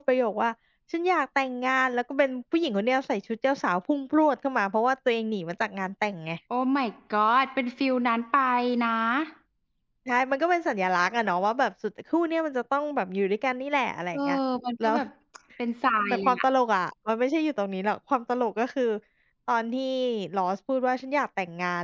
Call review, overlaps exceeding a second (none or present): none